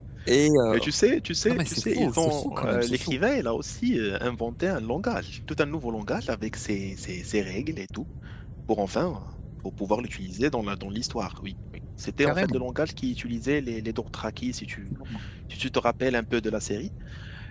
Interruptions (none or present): present